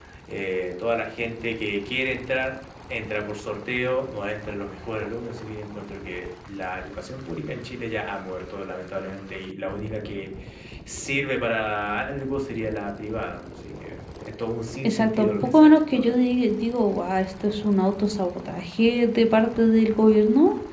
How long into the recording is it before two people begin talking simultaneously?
14.8 s

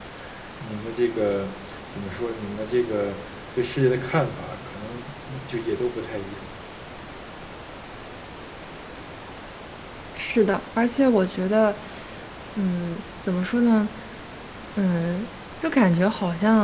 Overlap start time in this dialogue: none

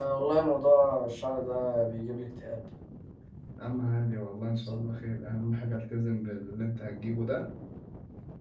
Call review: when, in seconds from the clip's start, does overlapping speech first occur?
none

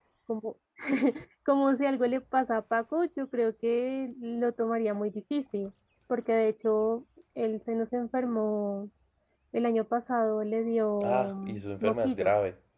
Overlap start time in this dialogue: 11.0 s

